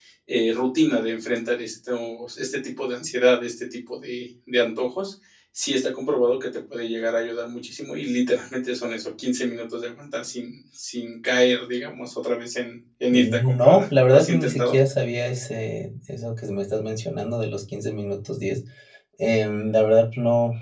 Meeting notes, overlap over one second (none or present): present